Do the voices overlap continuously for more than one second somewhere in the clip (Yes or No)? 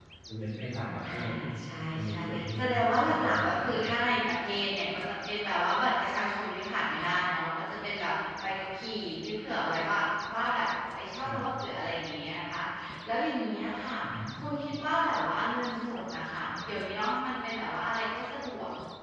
Yes